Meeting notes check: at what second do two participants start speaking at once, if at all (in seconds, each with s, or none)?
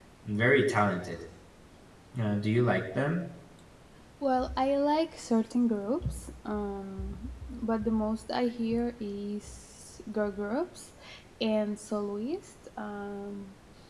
none